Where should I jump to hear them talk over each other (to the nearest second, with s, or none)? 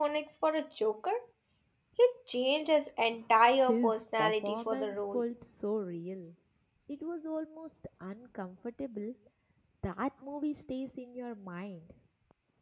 4 s